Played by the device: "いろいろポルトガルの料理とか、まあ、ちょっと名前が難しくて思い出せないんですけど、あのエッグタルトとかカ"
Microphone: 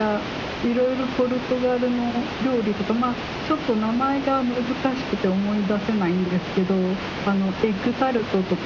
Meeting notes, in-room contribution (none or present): none